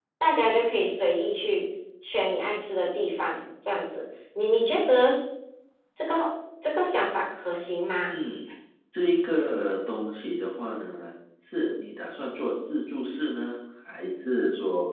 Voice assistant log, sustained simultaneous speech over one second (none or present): none